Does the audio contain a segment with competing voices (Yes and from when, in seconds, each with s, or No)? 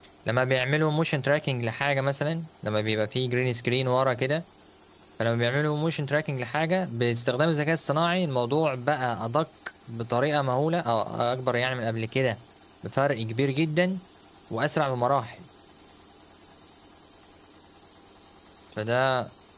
No